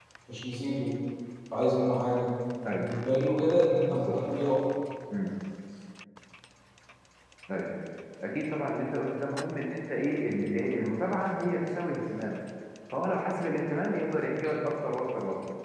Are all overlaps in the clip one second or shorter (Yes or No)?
Yes